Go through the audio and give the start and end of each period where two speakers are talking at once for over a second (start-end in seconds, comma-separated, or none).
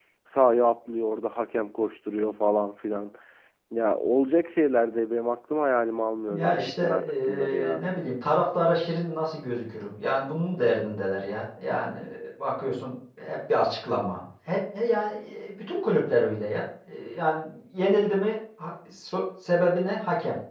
6.3-7.8